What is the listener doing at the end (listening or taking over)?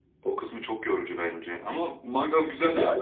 listening